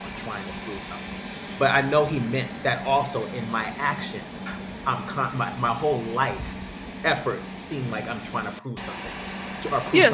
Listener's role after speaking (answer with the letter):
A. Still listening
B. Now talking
B